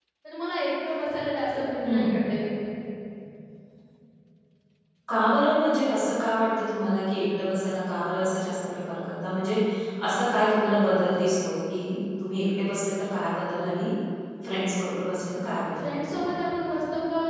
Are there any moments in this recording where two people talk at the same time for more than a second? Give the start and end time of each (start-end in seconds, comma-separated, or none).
none